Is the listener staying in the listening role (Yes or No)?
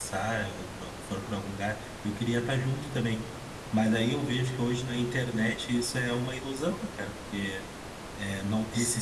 Yes